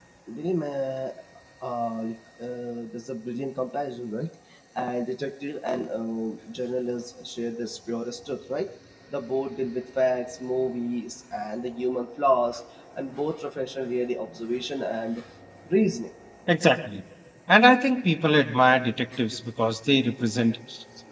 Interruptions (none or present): none